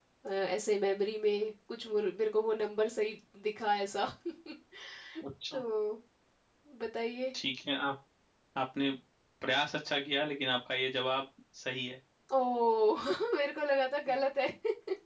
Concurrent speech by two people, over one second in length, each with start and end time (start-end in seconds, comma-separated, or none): none